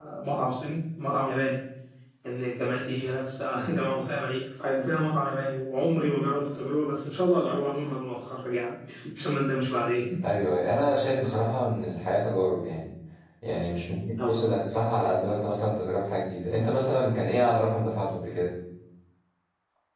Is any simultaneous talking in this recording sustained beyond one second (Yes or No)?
No